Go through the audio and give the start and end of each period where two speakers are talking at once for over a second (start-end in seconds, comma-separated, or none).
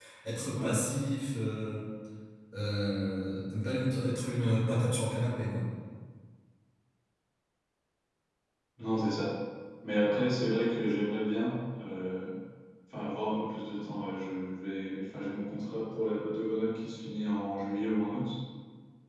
none